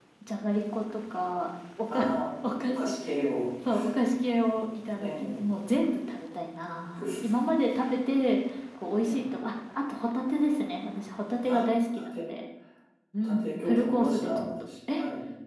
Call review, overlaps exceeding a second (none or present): present